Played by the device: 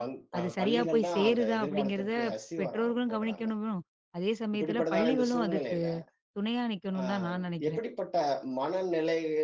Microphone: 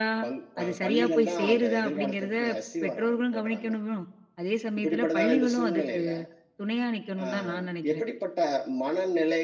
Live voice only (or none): none